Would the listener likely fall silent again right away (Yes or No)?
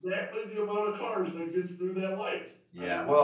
No